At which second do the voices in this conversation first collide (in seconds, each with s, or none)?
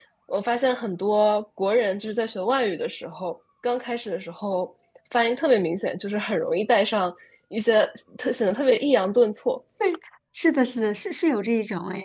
none